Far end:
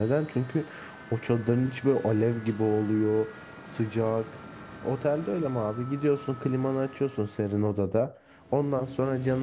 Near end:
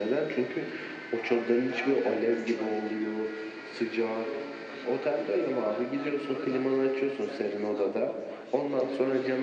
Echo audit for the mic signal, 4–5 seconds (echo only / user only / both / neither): both